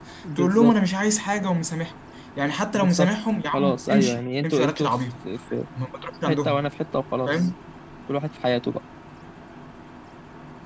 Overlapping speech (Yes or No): Yes